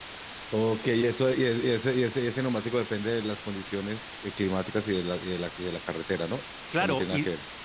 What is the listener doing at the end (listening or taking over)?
taking over